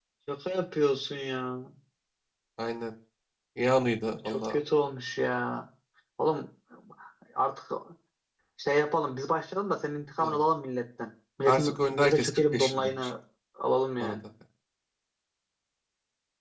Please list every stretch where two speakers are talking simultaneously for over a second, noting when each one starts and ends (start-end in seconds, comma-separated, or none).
11.4-12.9